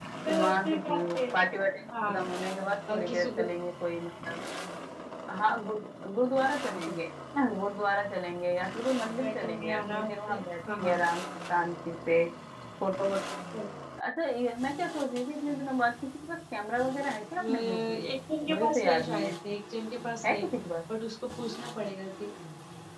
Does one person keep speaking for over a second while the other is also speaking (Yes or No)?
Yes